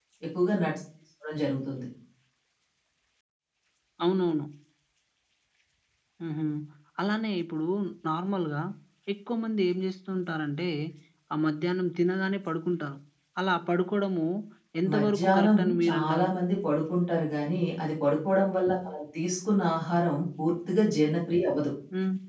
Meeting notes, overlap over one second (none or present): present